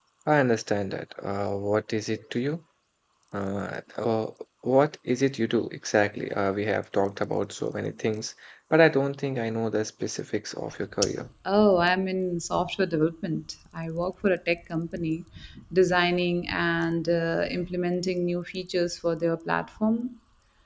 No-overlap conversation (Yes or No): Yes